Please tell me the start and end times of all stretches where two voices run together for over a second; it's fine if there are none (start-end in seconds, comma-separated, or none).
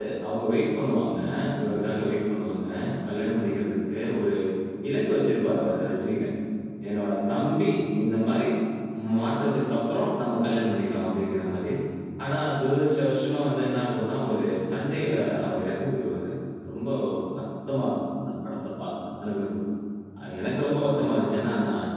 none